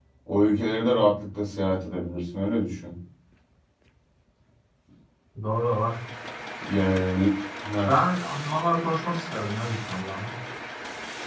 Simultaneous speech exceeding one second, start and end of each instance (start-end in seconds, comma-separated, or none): none